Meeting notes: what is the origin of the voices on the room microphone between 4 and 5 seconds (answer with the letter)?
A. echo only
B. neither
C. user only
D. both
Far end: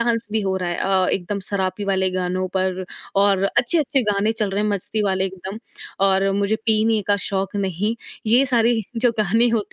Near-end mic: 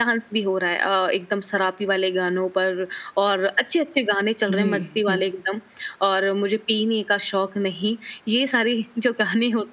D